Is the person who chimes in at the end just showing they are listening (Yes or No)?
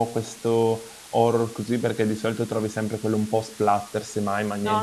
No